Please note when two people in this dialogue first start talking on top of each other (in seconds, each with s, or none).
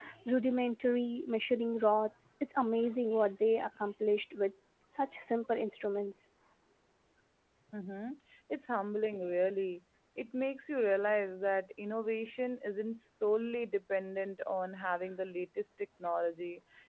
none